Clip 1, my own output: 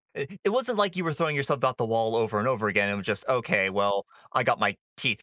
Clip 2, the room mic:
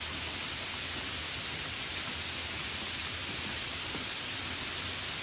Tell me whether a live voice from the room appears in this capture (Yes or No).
No